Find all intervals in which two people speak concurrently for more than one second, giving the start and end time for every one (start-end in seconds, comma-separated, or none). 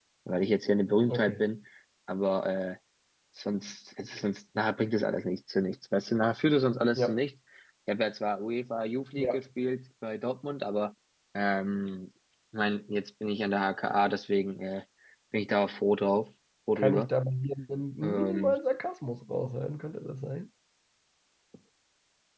none